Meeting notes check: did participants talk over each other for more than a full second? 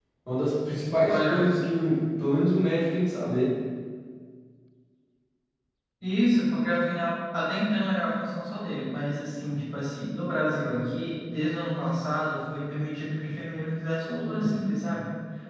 No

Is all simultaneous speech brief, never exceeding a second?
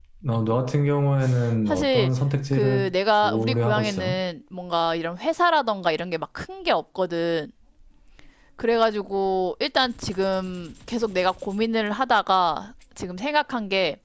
No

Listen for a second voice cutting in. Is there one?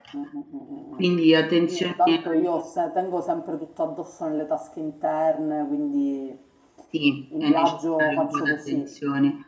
Yes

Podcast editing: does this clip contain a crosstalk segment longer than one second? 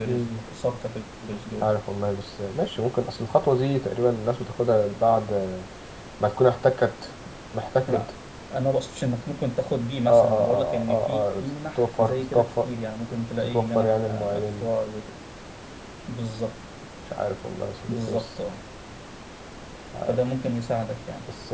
Yes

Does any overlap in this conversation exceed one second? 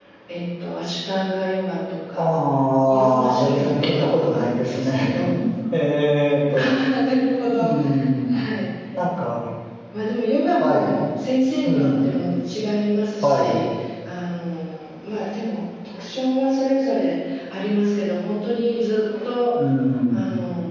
Yes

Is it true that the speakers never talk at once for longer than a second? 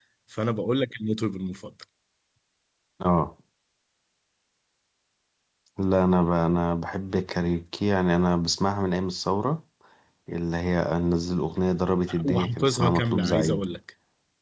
No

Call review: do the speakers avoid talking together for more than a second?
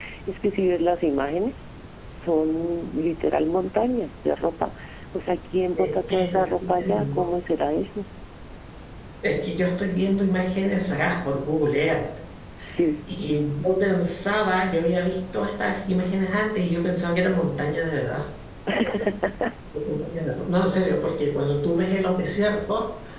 No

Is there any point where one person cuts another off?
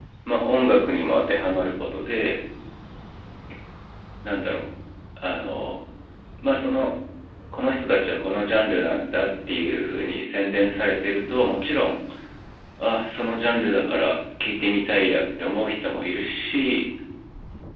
No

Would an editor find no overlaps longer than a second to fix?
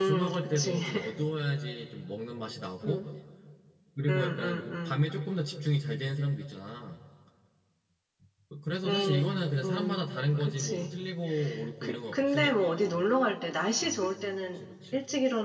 No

